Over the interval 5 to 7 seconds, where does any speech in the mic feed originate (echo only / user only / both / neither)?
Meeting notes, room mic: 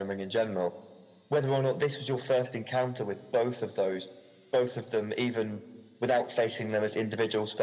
echo only